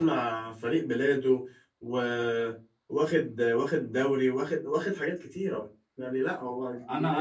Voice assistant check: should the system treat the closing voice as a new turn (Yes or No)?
Yes